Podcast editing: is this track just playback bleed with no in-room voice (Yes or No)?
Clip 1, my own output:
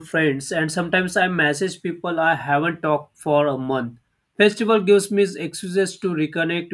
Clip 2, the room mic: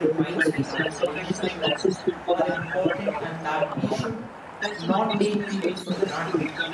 No